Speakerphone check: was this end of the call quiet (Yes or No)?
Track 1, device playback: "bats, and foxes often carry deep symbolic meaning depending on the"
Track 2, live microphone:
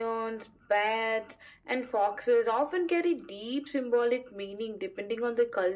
Yes